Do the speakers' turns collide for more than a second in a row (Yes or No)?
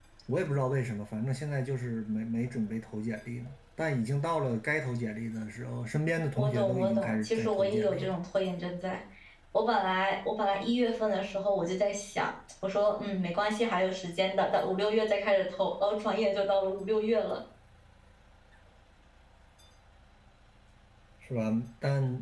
Yes